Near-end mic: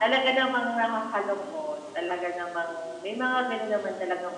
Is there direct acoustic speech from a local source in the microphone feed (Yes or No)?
No